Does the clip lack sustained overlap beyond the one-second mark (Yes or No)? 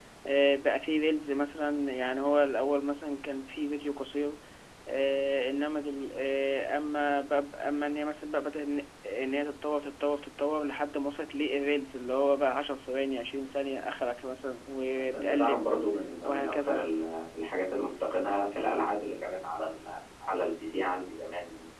Yes